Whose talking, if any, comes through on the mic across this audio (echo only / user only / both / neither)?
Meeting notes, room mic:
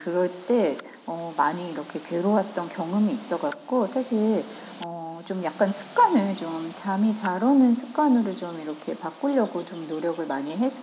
echo only